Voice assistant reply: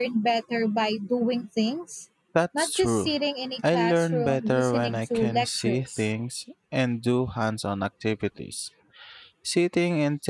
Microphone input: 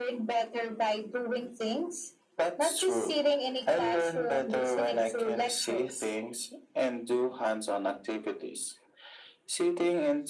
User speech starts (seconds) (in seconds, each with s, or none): none